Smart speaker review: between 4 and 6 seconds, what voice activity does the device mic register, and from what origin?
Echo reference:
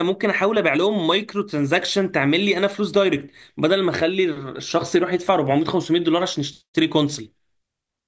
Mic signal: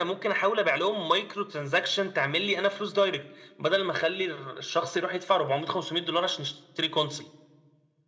echo only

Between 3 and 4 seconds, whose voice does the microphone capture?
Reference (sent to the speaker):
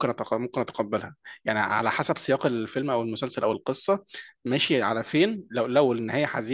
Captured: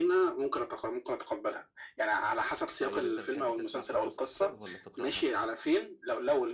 both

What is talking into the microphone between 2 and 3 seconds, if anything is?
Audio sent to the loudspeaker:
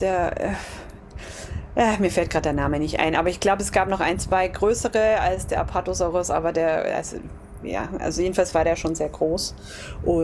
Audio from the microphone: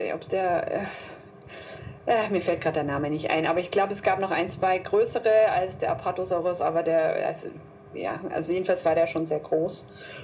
echo only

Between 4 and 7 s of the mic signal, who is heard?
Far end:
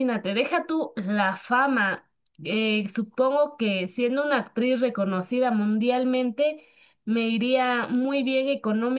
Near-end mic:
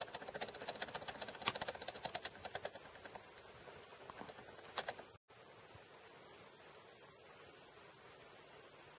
neither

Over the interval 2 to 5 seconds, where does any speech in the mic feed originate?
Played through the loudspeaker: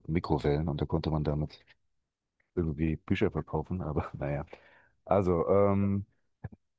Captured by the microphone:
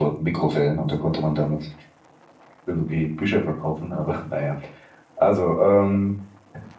echo only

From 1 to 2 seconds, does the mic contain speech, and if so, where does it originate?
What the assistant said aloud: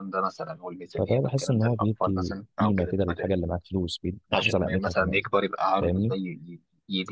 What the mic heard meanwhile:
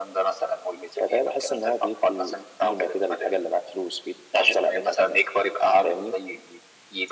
echo only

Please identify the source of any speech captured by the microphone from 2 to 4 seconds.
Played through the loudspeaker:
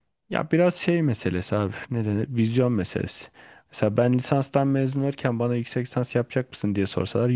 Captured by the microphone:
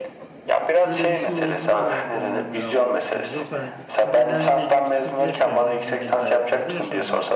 both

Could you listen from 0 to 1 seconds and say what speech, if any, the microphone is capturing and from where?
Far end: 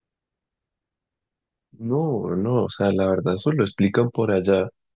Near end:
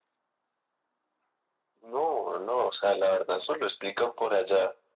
neither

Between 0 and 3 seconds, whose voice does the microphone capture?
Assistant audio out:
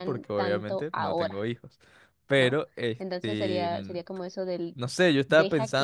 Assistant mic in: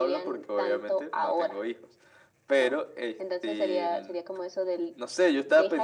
echo only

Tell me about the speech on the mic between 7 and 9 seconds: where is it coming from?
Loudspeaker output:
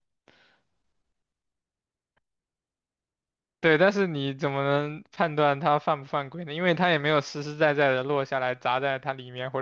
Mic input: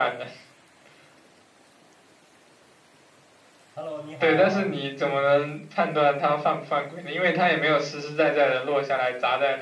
echo only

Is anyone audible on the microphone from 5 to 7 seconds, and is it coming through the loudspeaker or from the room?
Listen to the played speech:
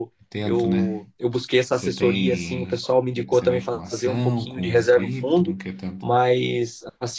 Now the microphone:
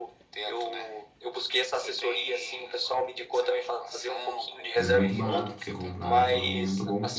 both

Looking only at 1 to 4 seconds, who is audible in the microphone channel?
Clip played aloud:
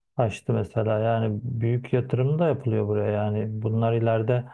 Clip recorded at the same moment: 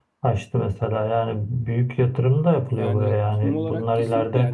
both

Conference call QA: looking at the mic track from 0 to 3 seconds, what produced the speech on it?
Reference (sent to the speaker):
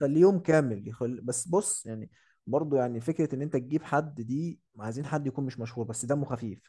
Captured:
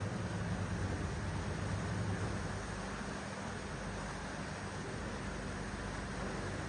neither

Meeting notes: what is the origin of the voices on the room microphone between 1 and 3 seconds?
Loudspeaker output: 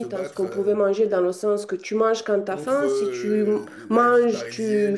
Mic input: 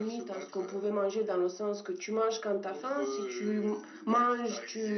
echo only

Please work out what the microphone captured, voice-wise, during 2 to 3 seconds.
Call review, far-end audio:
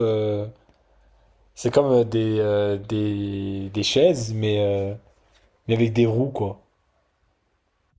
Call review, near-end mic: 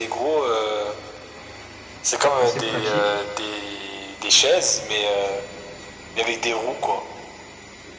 both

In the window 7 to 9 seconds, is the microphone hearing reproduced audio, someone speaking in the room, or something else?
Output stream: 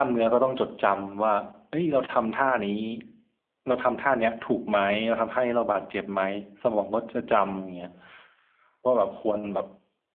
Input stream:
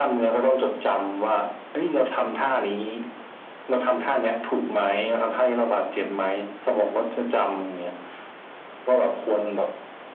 echo only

